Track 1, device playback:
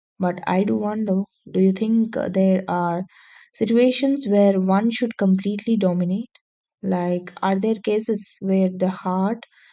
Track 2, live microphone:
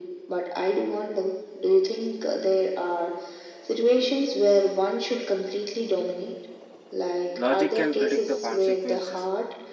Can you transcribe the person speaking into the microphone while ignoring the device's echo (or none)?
Logic can predict the consequences,